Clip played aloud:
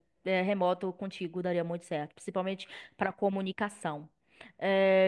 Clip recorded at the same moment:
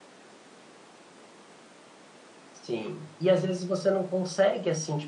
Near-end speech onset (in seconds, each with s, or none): 2.5 s